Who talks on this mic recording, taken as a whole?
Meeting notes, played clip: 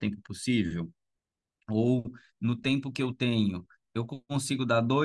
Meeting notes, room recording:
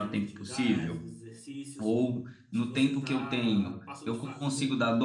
both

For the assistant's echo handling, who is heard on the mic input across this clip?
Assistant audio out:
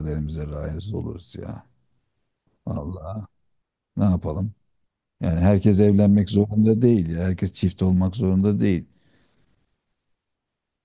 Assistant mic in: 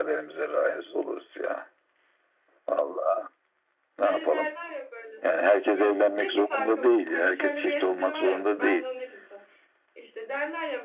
both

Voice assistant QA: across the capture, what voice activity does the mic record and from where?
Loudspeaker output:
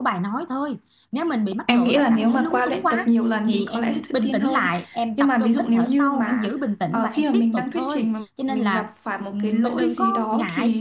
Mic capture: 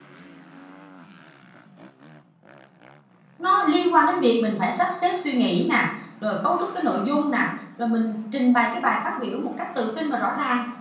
user only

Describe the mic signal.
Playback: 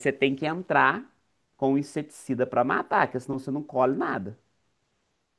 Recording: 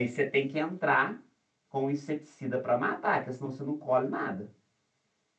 echo only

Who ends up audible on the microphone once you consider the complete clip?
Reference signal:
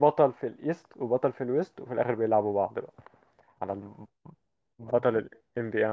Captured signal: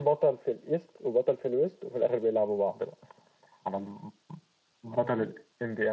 echo only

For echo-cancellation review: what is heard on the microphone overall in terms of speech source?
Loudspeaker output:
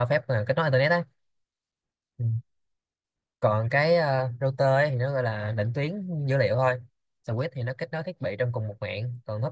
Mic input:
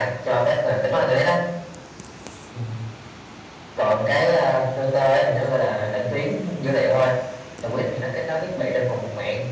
echo only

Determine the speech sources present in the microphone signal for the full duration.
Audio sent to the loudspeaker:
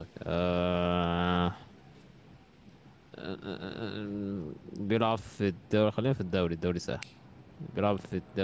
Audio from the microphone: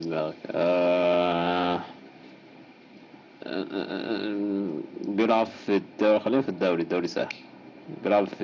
echo only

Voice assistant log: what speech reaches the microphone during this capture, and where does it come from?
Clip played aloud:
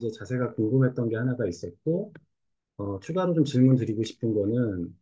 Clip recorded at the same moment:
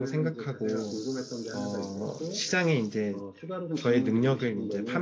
both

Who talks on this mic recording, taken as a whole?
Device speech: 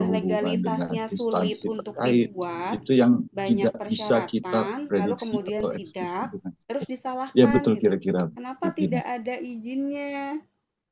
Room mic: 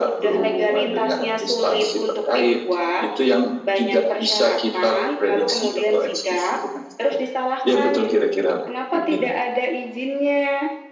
echo only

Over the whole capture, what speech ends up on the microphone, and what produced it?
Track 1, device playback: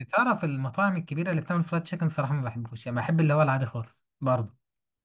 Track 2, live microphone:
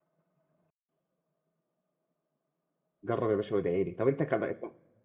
user only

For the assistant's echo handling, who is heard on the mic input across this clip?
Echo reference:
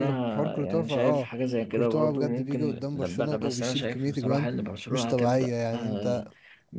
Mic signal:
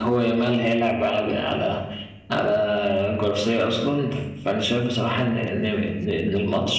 user only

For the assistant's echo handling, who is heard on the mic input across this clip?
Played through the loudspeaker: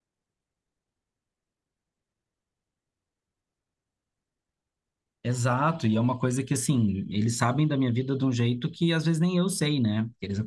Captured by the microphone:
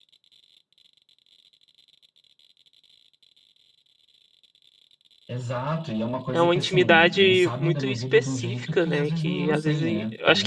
both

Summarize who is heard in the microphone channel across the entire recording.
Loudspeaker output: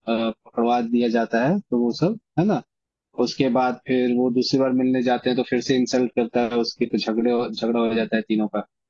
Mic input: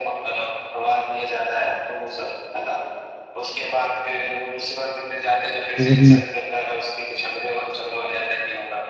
both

